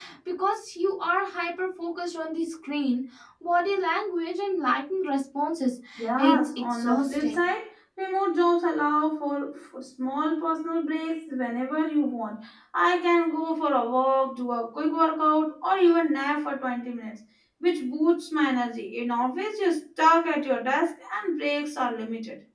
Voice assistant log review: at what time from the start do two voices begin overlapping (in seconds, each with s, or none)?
6.2 s